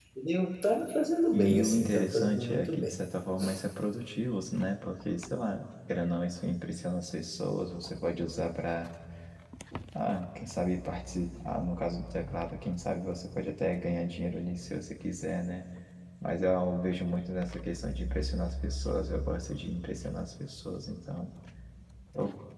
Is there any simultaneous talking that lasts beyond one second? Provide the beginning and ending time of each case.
1.3-3.0

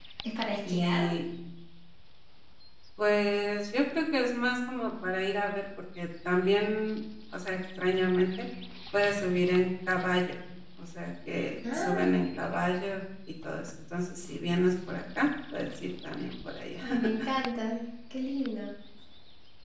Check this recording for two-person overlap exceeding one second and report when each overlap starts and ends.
none

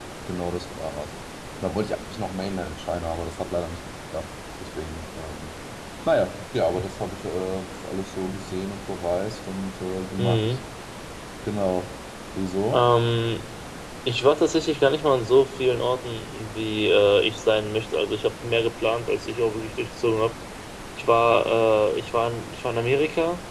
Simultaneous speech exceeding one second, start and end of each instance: none

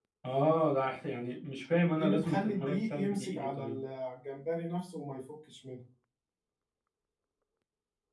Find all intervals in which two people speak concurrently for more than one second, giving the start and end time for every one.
2.0-3.8

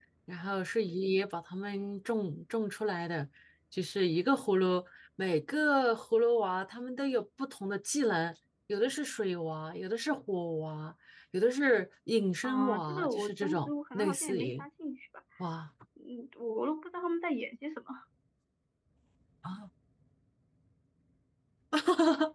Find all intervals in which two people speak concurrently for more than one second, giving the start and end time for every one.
12.4-14.7

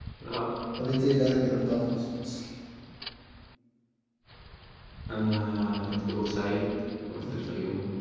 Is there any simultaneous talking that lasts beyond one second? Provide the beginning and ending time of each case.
none

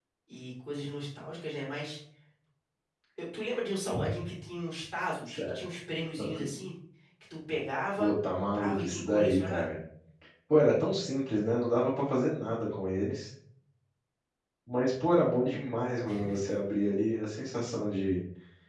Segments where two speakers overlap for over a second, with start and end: 8.0-9.7

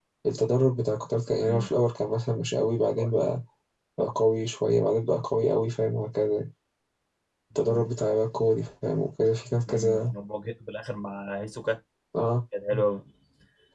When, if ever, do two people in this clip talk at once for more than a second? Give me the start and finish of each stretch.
none

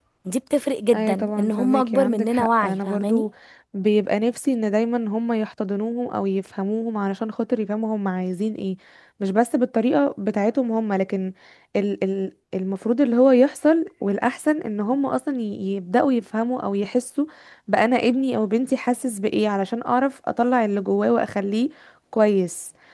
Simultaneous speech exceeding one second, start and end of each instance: 0.9-3.3

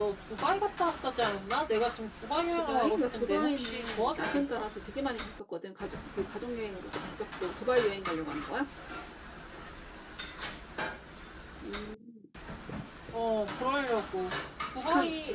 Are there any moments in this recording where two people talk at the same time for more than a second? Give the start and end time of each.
2.5-4.6

